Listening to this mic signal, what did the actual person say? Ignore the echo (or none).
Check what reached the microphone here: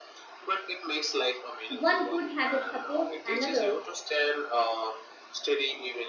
One good habit supports another.